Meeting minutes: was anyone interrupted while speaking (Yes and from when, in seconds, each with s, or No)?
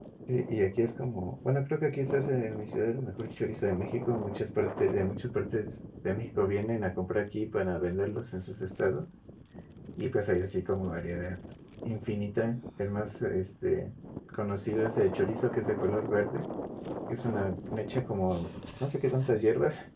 No